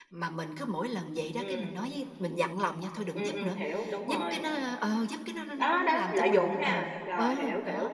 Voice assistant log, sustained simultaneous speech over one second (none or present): present